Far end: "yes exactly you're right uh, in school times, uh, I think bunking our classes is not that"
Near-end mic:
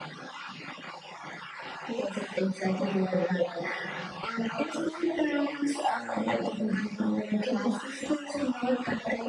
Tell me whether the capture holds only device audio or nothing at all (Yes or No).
Yes